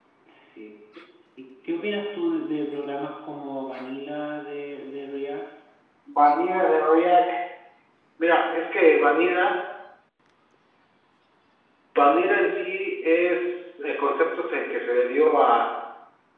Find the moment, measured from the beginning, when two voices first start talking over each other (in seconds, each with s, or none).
none